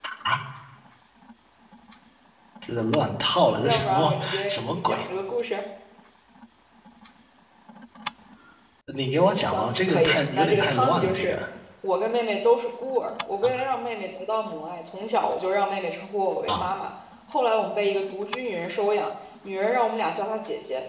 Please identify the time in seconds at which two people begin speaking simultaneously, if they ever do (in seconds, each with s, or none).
3.6 s